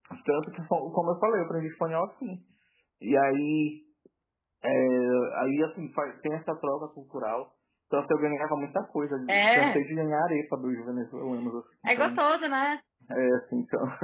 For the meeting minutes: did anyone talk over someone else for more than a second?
No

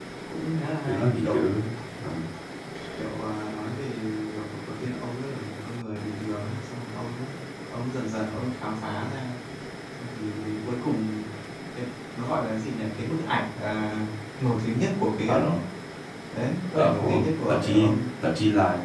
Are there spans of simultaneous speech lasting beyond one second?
Yes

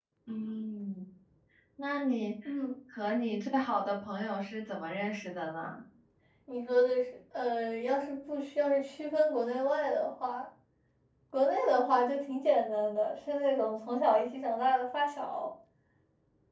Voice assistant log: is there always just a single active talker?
Yes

